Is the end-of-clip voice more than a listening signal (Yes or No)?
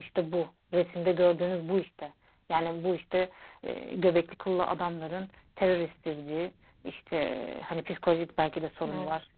No